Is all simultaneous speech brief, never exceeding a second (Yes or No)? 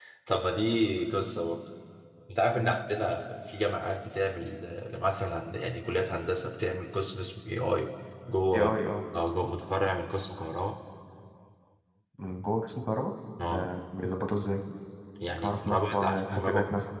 No